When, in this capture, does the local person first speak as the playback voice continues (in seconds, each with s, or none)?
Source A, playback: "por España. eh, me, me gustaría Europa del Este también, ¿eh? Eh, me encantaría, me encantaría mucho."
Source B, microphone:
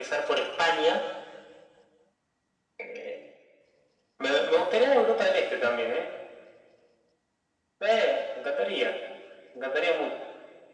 none